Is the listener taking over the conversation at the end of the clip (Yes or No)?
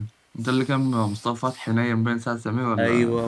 Yes